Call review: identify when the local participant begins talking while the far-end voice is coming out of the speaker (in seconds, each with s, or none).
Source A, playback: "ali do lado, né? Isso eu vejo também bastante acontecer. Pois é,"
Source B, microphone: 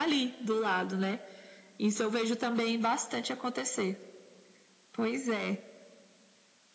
none